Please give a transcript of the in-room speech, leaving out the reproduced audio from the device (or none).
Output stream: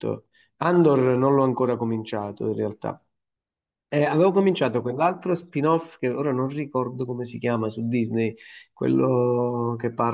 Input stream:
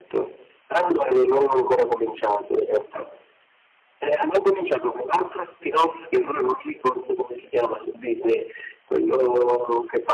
none